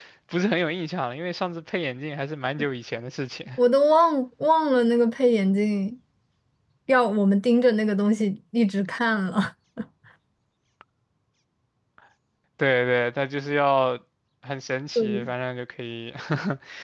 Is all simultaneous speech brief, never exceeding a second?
Yes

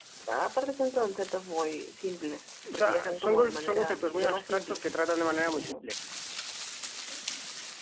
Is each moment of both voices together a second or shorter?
No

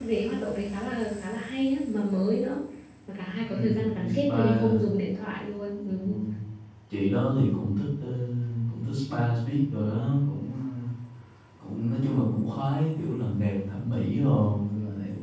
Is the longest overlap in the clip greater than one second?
Yes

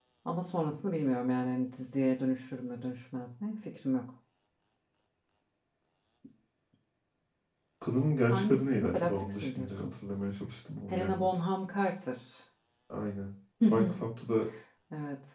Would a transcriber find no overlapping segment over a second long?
No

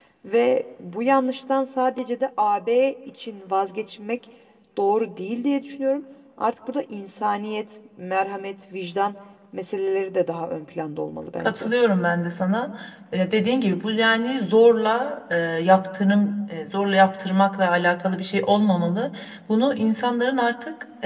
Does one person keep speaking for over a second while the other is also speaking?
No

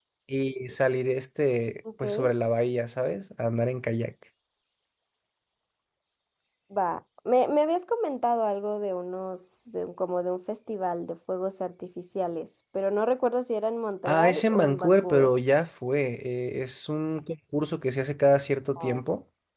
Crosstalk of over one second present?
Yes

